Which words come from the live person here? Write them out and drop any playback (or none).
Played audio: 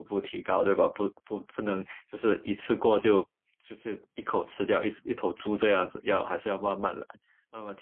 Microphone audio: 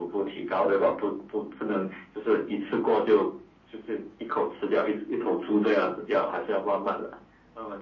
none